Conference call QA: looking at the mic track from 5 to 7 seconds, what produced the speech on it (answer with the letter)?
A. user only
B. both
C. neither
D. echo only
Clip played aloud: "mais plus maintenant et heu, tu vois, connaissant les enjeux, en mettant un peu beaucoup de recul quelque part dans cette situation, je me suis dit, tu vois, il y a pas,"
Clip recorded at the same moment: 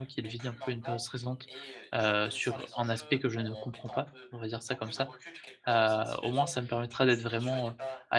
B